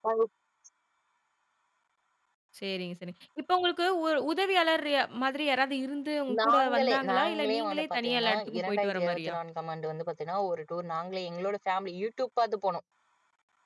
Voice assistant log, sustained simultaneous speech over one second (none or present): present